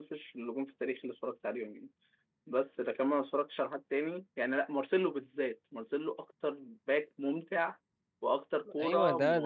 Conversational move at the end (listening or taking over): taking over